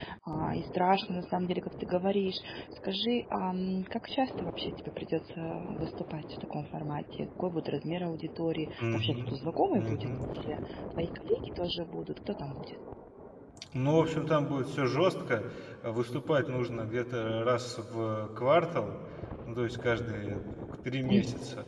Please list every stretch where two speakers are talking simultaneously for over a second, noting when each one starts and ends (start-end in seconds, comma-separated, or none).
none